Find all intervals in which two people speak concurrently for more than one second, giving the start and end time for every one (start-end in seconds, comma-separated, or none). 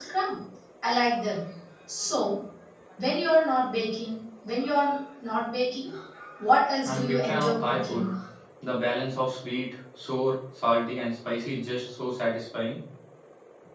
6.8-8.1